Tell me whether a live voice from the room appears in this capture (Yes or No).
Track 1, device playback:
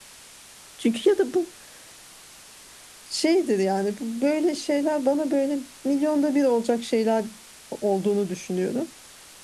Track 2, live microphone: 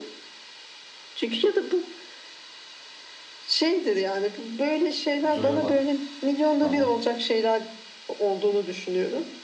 Yes